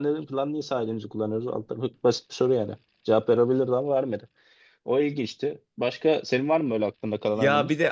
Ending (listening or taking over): taking over